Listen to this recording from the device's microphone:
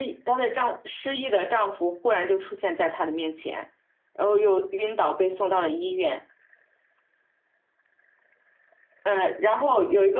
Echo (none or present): none